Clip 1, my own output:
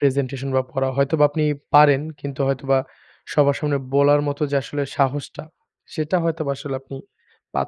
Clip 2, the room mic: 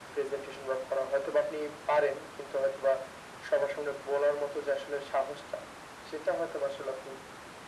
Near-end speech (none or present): none